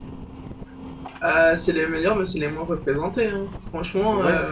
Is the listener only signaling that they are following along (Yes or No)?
No